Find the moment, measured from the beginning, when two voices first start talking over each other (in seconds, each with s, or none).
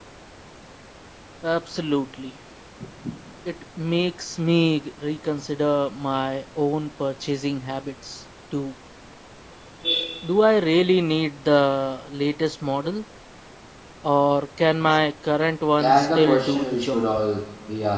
15.8 s